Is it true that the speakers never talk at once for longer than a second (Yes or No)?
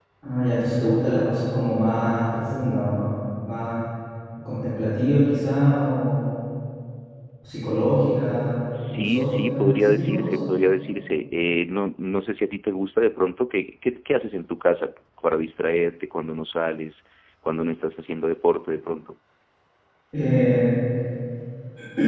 No